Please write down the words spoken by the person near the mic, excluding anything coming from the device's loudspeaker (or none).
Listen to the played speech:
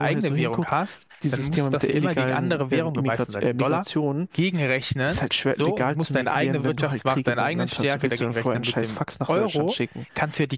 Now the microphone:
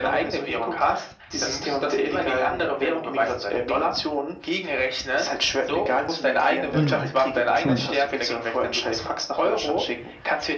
Mhm. True.